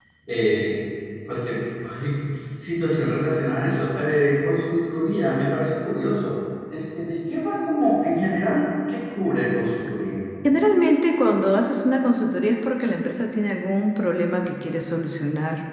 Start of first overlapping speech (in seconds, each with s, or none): none